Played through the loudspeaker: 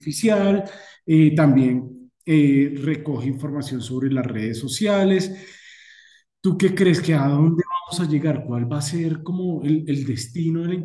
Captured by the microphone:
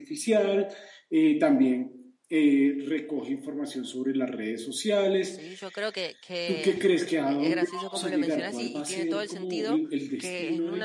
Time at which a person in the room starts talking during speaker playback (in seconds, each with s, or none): 5.2 s